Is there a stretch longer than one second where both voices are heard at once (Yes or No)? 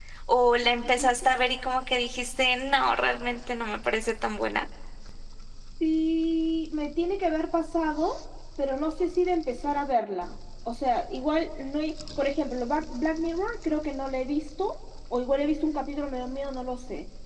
No